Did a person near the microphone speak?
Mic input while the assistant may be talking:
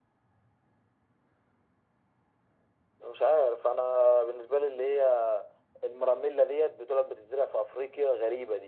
No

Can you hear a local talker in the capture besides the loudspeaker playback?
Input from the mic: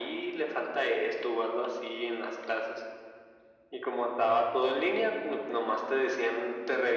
No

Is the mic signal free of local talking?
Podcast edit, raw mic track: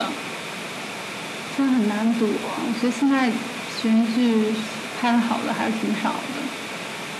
Yes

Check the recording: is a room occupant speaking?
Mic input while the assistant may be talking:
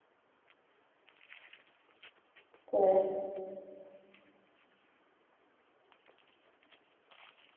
Yes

